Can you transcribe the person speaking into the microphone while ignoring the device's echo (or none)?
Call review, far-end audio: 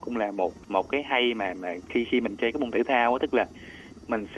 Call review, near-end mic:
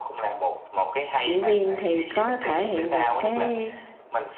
diễn viên thì có thể hiện được cái